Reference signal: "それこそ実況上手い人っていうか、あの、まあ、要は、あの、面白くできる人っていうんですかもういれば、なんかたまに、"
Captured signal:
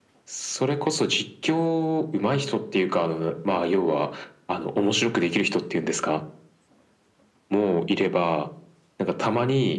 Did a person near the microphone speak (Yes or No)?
No